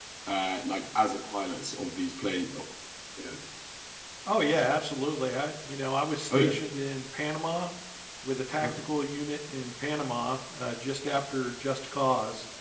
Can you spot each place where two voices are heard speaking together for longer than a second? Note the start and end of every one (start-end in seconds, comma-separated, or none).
none